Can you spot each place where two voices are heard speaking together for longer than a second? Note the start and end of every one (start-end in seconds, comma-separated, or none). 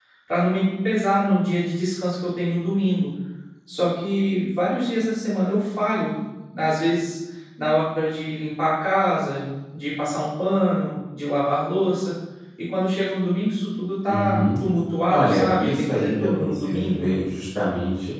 15.1-17.1